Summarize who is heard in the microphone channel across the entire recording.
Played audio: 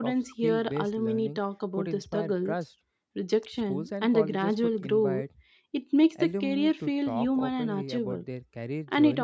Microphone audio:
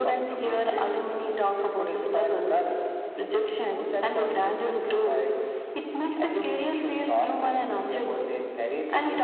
echo only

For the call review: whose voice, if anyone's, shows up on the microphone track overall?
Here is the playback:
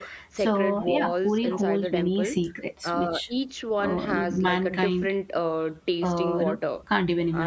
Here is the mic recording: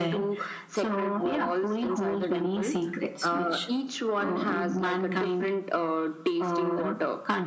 echo only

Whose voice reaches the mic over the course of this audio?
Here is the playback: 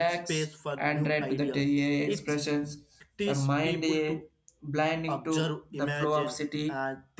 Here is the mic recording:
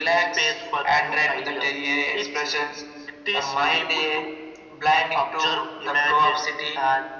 echo only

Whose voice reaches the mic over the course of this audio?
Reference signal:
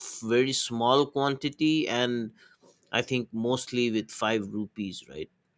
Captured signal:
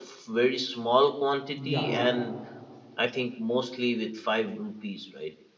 both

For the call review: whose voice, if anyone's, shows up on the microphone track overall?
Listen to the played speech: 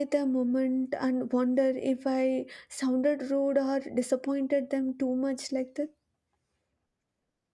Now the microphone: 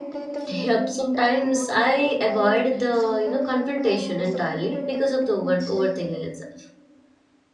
both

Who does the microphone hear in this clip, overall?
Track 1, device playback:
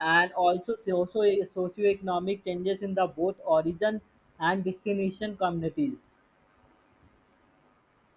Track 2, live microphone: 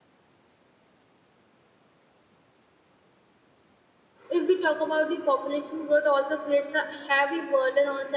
user only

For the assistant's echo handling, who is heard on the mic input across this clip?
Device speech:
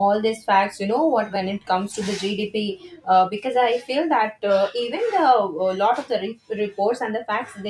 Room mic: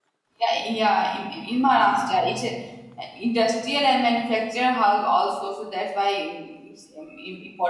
user only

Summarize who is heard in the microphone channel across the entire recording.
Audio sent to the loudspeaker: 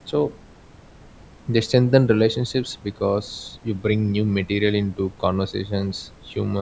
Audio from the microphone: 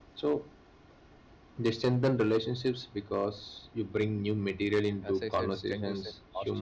both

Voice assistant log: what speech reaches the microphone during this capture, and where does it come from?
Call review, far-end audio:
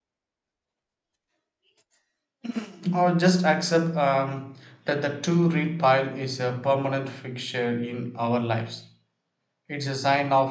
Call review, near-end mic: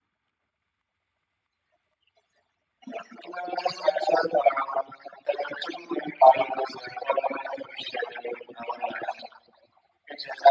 echo only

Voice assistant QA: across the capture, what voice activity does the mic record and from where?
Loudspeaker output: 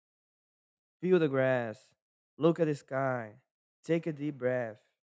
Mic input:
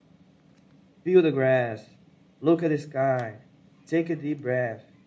echo only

